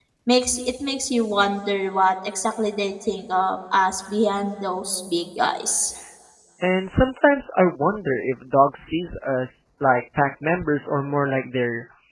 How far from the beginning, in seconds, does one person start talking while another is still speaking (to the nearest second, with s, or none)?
none